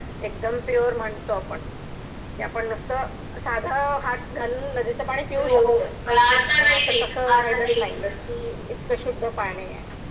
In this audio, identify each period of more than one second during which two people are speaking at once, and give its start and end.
6.6-8.1

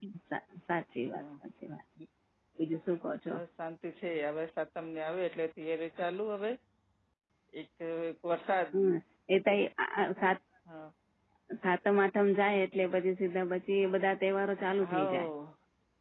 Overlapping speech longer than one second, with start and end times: none

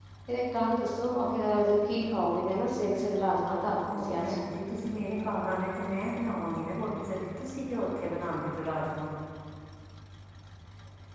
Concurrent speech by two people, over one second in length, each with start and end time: none

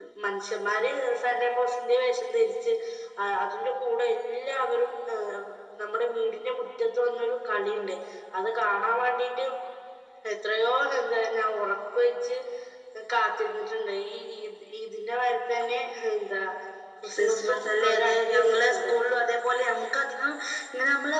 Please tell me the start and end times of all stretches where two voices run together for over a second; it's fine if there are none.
17.1-19.0

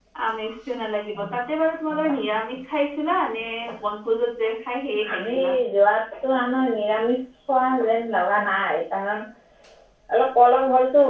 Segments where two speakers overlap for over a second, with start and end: none

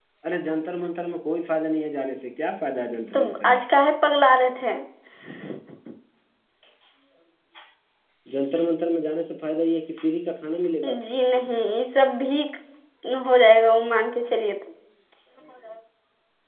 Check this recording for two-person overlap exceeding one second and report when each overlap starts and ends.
none

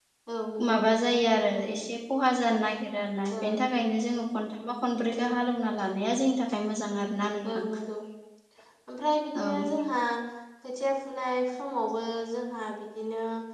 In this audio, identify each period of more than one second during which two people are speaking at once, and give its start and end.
none

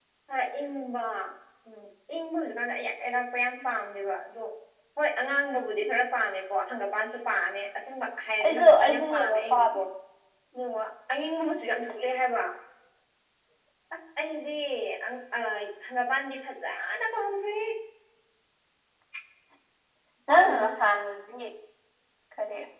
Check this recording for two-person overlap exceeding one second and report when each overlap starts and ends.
8.4-9.8

